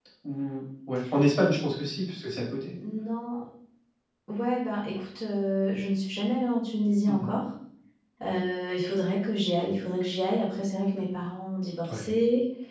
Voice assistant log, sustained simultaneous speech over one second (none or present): none